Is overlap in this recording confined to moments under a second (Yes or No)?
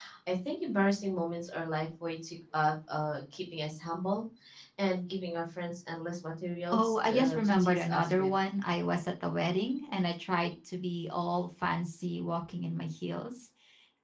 No